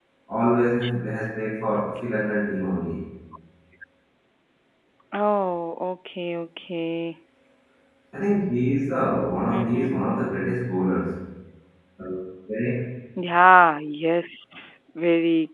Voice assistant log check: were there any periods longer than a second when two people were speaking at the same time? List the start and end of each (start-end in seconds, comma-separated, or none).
none